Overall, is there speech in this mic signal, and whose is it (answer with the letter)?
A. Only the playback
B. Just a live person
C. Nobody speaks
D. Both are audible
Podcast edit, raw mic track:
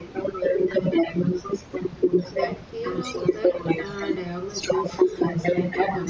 D